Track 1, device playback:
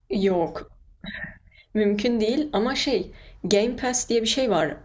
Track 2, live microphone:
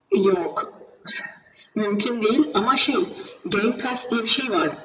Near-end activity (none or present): none